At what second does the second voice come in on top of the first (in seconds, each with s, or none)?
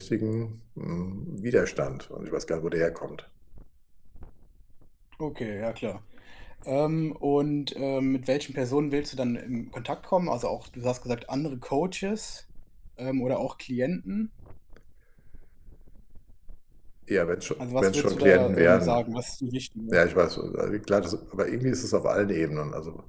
17.6 s